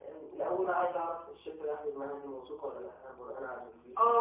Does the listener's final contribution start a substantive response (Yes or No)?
Yes